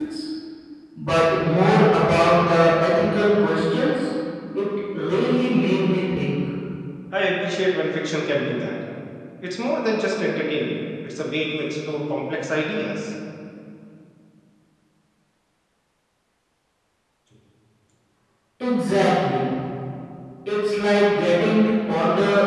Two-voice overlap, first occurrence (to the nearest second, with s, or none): none